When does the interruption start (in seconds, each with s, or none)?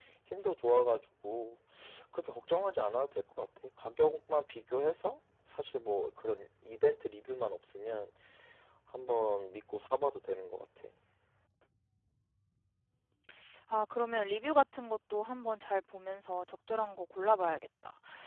none